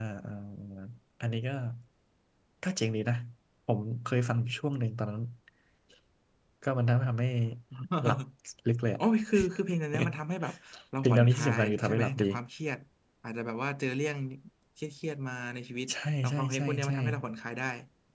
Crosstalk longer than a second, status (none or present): present